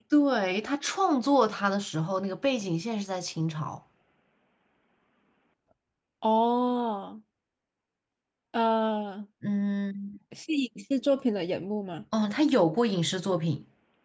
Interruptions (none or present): none